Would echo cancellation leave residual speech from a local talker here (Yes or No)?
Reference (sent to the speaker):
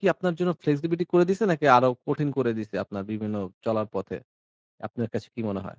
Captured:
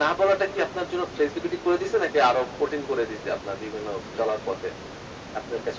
No